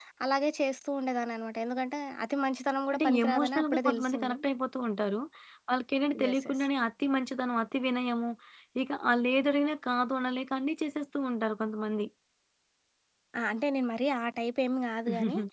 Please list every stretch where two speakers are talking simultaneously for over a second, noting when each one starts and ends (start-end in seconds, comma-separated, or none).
2.9-4.3